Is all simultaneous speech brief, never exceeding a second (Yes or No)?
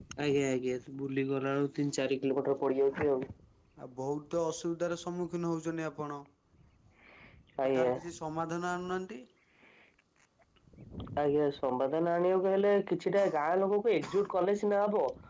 Yes